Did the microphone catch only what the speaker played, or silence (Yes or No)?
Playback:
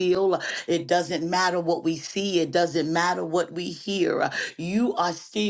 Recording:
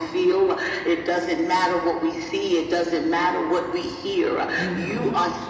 No